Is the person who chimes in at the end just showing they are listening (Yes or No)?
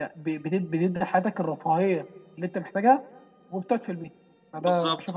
No